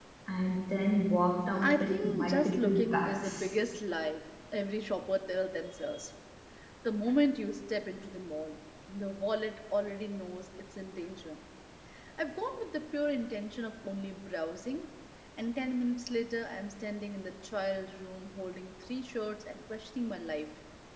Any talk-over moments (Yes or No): Yes